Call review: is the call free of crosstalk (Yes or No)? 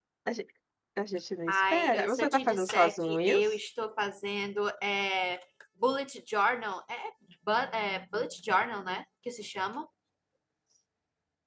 No